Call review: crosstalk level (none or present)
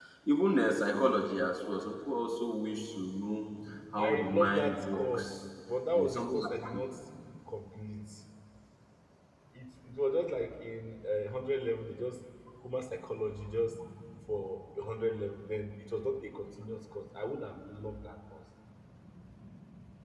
present